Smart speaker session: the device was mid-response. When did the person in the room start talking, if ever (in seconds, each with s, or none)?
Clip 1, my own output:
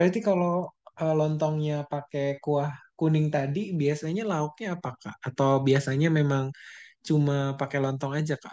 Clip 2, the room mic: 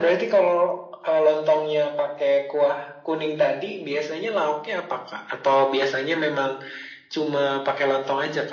none